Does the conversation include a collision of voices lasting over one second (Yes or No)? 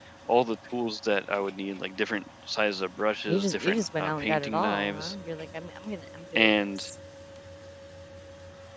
Yes